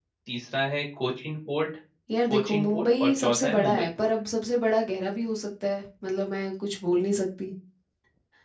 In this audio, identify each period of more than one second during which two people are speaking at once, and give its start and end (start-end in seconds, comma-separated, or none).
2.3-4.1